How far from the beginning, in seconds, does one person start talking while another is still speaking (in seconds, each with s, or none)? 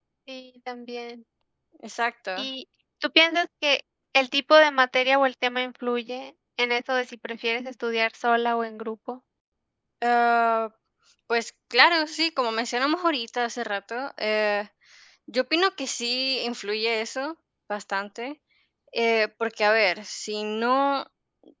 none